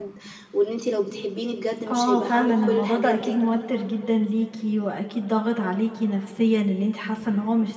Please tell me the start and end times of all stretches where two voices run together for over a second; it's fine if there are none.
1.9-3.4

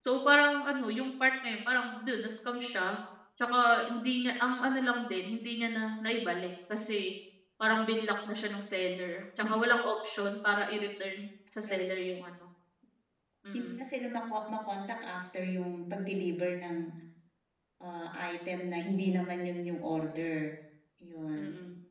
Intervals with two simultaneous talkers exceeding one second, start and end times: none

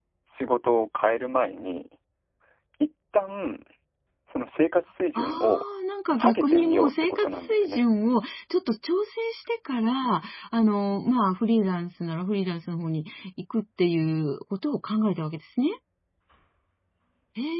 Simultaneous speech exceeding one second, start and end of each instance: 6.1-7.8

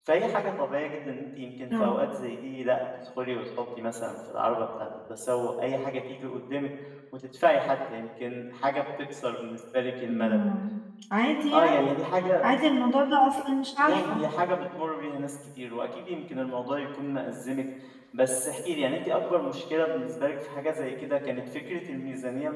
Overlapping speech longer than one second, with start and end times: none

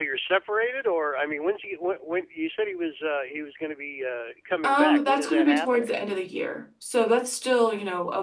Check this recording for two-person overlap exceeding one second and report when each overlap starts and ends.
4.6-5.9

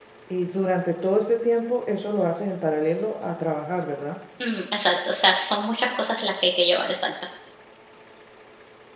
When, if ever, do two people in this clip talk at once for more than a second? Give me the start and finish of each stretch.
none

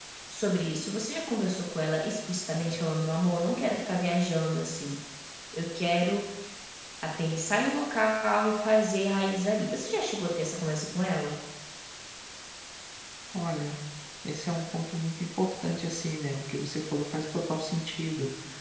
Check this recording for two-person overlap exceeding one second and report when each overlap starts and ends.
none

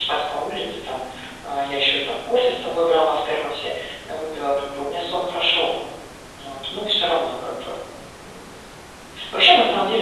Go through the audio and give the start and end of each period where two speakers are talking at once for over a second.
none

